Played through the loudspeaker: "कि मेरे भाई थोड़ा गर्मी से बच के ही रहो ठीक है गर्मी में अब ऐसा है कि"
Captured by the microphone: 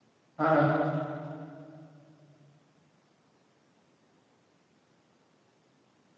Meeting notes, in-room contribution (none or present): present